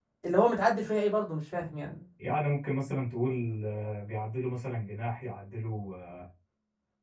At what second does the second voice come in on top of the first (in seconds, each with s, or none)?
none